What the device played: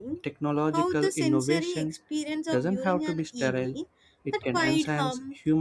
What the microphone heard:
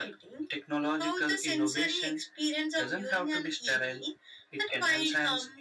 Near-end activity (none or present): none